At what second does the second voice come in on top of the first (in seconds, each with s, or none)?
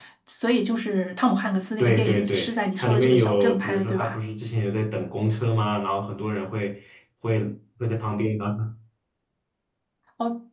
1.8 s